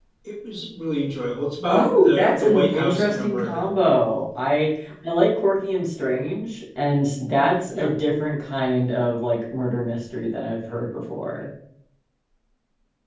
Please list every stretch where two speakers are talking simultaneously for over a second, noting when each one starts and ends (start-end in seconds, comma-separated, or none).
1.7-3.7